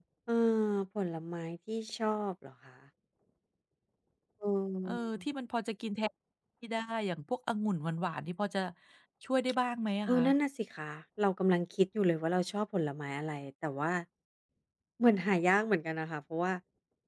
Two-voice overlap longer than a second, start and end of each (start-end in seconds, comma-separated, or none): none